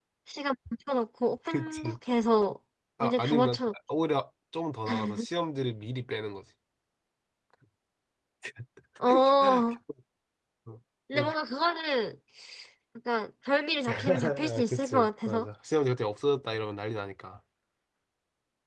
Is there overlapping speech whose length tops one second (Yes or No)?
Yes